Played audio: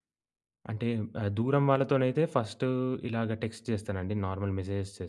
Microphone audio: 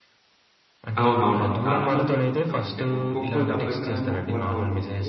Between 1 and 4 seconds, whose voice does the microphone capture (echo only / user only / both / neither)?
both